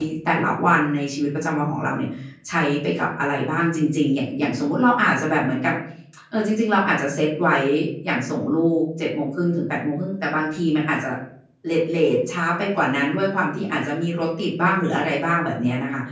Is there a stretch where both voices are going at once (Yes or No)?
No